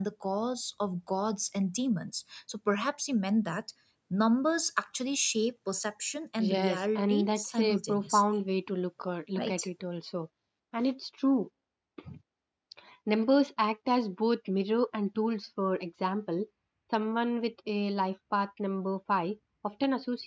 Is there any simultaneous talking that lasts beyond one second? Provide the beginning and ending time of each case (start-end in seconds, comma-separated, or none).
6.4-8.2